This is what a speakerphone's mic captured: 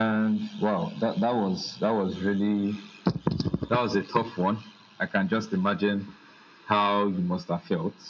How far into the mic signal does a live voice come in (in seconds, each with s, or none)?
none